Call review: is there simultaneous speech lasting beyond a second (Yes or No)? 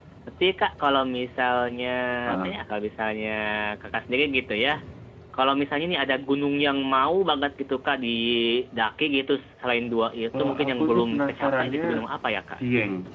Yes